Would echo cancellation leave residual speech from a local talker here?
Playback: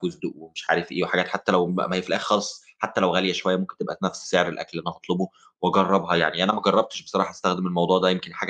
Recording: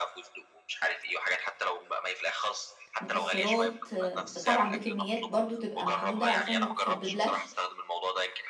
Yes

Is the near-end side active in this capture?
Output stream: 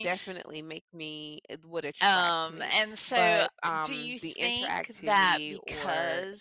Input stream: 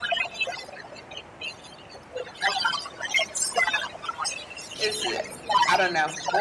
Yes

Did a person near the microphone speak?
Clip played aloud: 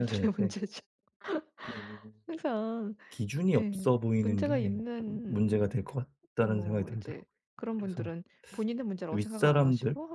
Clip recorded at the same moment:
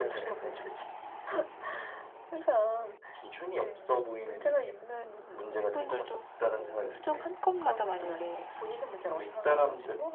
Yes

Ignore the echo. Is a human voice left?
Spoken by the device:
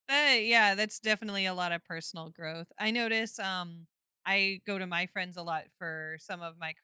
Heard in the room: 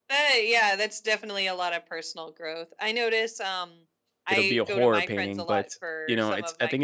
Yes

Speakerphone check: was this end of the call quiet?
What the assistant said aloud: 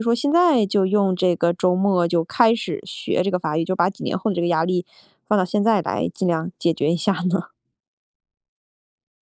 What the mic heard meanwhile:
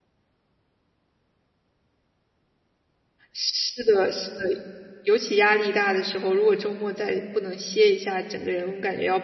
No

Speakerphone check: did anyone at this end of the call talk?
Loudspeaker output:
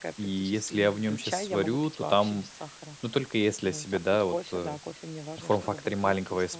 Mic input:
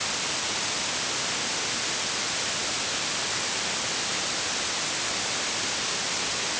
No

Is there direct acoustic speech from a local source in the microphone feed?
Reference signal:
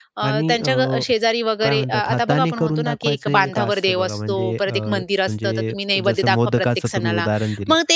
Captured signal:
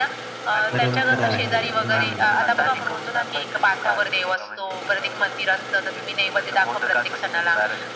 Yes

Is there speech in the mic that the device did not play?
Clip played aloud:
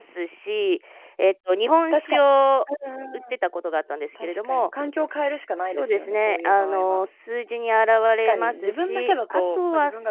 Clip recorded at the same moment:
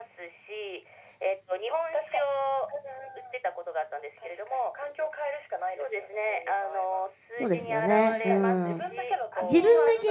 Yes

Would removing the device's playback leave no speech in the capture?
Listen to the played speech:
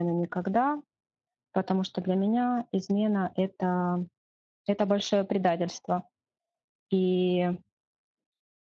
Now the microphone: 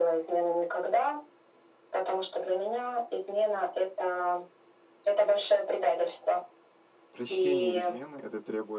No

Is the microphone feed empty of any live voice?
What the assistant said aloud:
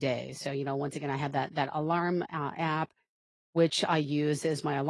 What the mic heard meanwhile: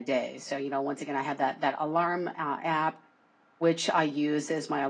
Yes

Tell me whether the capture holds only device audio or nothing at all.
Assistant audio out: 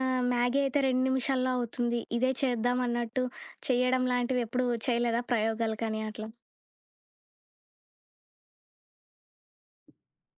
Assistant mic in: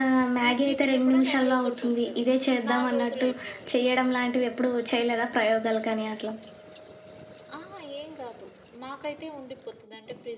No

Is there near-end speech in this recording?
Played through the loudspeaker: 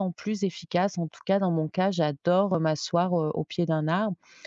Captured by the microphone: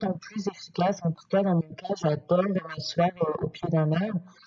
No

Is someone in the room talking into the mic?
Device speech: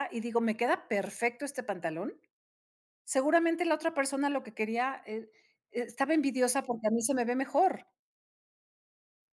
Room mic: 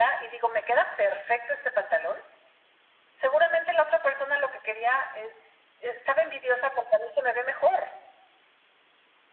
No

